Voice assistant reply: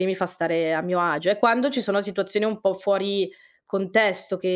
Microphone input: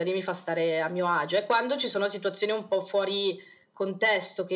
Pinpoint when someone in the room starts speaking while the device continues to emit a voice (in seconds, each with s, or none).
none